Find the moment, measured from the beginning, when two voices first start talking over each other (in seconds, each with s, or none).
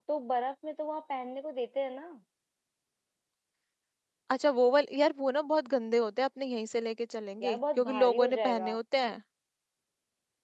7.4 s